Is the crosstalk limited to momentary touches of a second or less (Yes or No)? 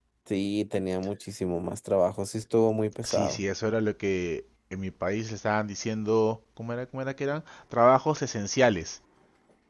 Yes